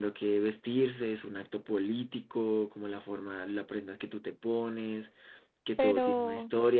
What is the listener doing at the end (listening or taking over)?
listening